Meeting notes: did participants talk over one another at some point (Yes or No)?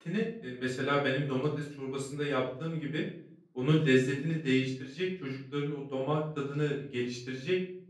No